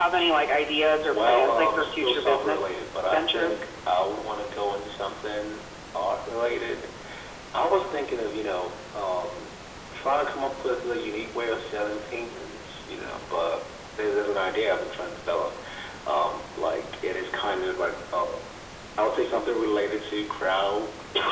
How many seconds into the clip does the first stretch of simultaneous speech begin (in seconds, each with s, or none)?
1.1 s